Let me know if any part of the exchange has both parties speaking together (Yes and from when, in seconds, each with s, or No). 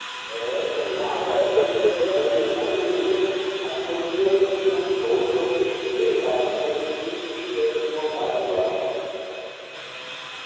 Yes, from 0.7 s